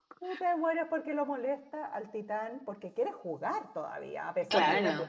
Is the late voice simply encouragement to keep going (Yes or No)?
Yes